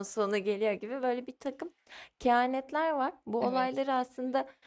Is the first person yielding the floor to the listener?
No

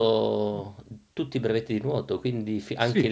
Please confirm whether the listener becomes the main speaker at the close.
Yes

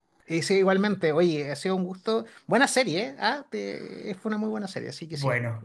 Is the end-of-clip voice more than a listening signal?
Yes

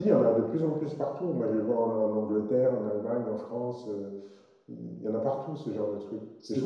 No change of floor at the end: Yes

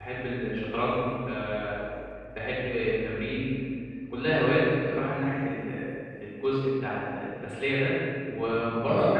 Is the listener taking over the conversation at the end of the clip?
No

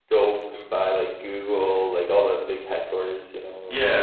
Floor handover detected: Yes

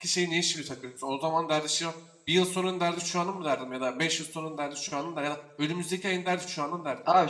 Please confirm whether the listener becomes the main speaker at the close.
Yes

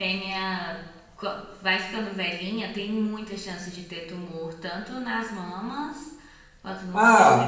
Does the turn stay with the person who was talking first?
No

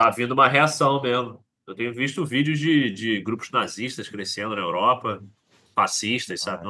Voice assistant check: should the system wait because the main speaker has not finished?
No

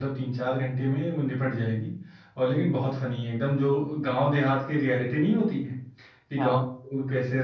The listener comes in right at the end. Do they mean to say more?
No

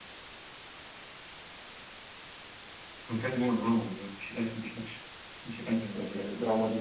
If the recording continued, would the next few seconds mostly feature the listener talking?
Yes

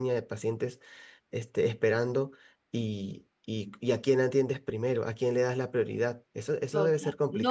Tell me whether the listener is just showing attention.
No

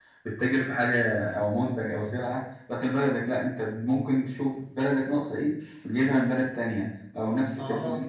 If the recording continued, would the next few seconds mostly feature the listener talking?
No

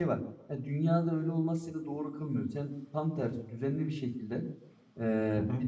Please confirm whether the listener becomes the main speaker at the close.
No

